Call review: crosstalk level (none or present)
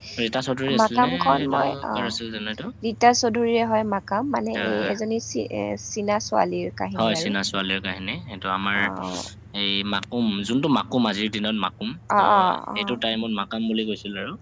present